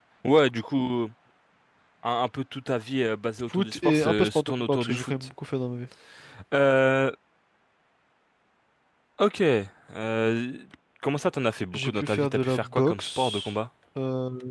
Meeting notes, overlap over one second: present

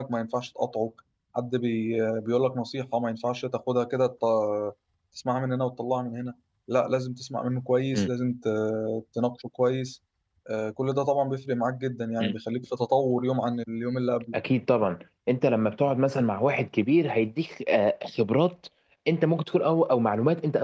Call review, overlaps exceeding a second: none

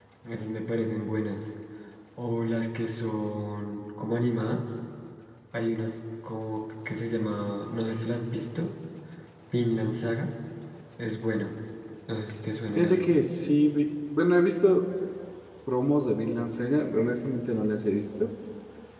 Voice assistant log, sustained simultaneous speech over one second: none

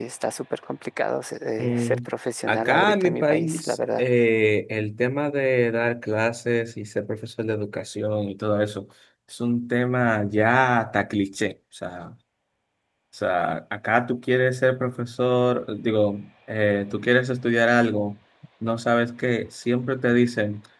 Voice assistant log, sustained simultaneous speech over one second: present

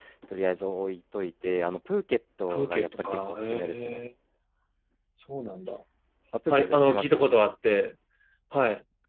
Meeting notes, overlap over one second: present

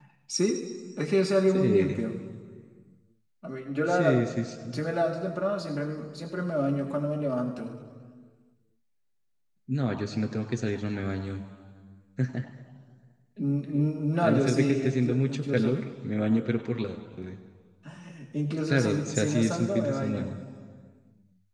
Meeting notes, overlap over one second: present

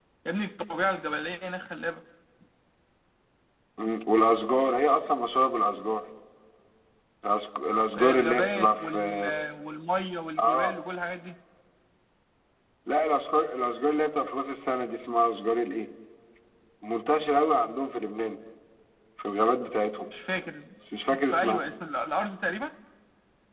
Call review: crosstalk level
present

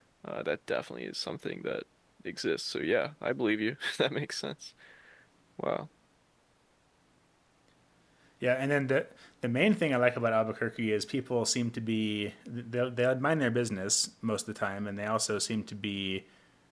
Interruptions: none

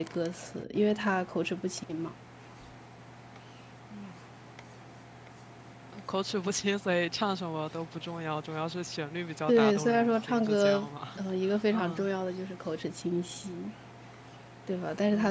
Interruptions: present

